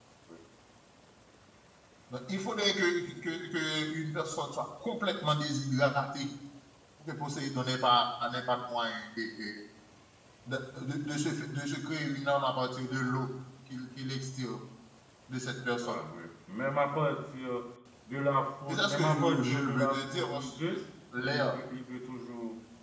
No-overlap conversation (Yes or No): No